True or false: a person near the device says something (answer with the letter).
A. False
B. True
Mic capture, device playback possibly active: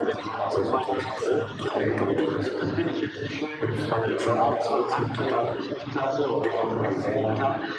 A